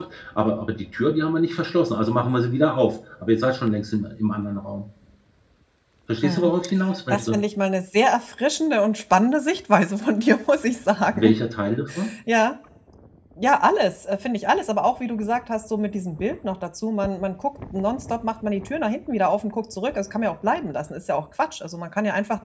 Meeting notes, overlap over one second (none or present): none